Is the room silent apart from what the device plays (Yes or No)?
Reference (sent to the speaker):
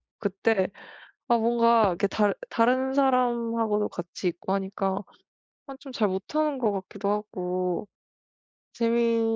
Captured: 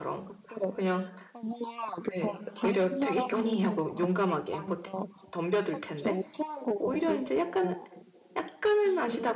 No